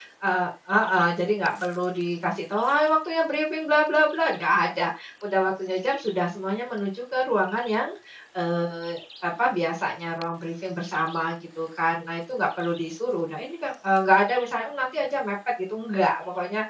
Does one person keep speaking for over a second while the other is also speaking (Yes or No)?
No